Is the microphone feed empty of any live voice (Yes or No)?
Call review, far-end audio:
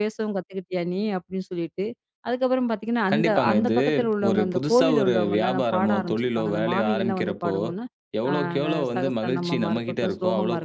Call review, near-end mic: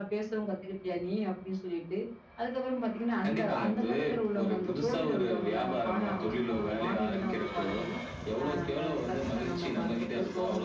Yes